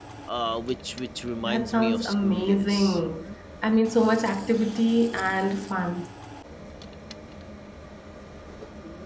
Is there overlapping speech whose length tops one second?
Yes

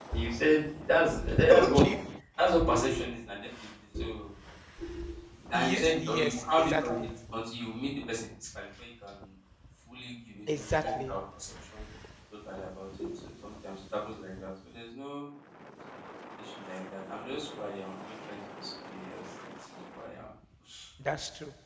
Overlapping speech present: Yes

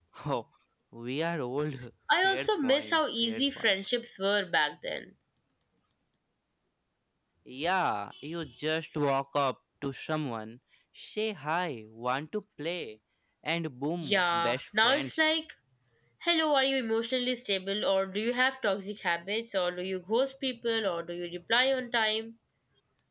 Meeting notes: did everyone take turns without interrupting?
No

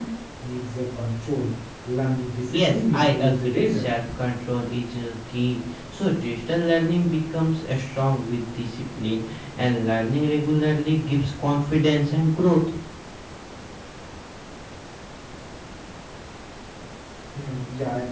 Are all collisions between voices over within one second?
No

